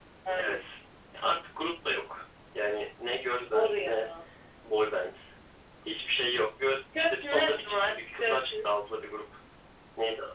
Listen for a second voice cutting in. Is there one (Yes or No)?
Yes